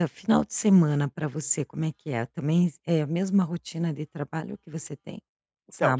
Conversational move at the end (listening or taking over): taking over